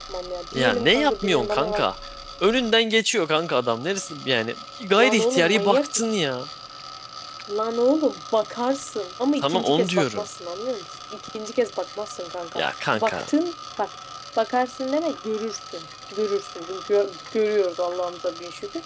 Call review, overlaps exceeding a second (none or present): present